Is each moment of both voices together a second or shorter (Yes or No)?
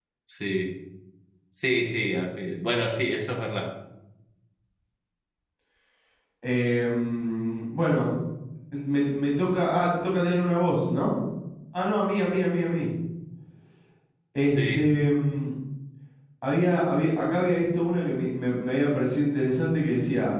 Yes